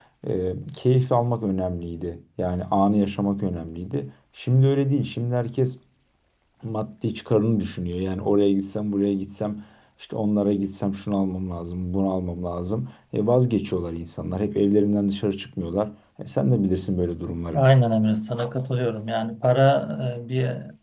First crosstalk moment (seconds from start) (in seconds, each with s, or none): none